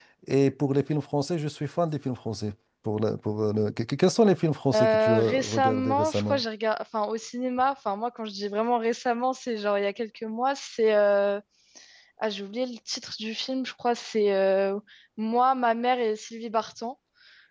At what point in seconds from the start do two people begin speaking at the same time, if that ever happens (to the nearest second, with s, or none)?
5 s